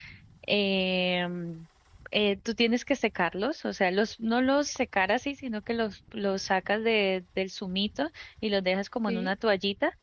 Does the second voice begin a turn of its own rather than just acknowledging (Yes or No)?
No